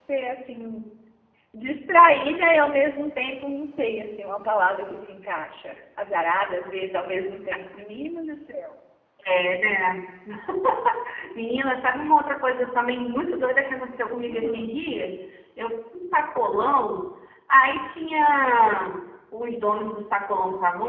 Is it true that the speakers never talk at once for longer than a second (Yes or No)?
Yes